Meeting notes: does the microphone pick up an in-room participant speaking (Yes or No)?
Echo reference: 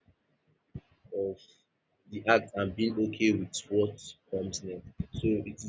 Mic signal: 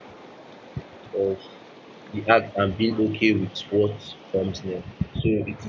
No